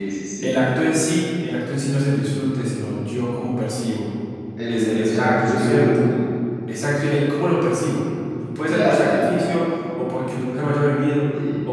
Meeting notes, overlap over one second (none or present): present